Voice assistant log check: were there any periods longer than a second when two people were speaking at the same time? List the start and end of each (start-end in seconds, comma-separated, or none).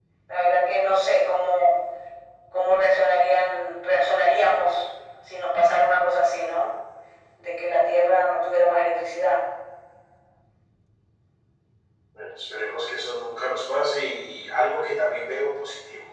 none